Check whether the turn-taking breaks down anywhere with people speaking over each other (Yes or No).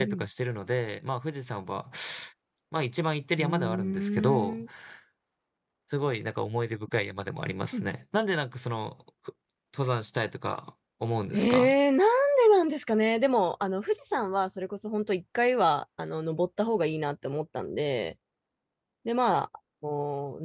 Yes